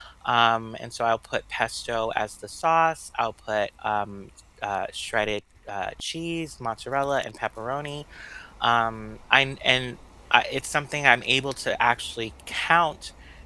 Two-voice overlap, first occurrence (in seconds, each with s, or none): none